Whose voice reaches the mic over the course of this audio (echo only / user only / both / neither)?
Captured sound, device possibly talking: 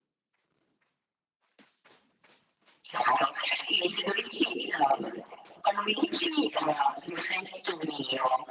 echo only